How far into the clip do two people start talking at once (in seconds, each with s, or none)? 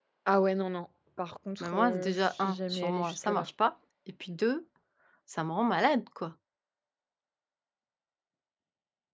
1.6 s